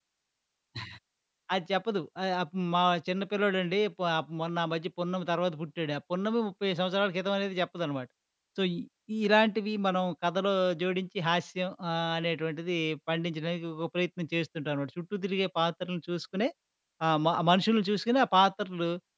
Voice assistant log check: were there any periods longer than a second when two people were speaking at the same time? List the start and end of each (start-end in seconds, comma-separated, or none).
none